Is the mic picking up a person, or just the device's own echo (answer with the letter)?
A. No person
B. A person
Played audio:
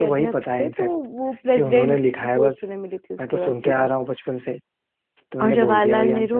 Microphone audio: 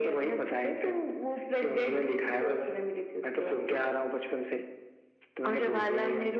A